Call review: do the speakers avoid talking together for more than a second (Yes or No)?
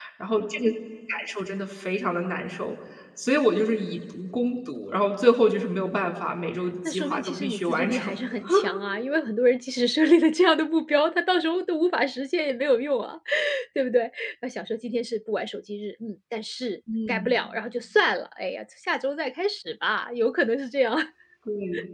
No